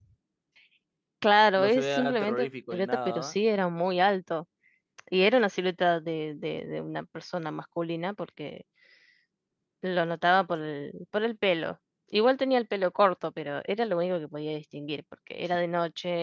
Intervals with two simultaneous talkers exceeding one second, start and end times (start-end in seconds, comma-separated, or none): 1.6-3.4